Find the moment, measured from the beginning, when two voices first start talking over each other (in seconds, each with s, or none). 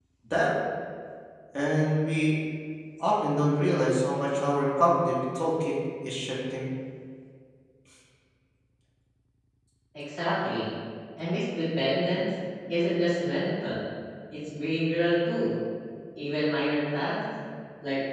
none